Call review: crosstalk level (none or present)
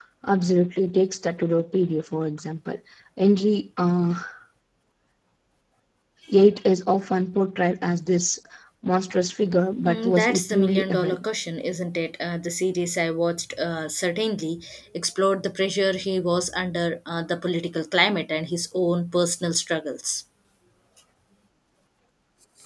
present